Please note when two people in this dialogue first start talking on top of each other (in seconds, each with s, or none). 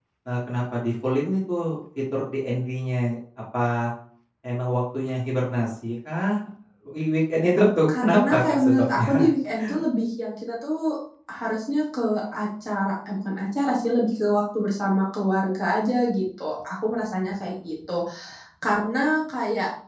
7.9 s